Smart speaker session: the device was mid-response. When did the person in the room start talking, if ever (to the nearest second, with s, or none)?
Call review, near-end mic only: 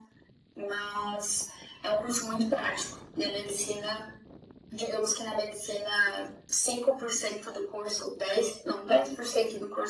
none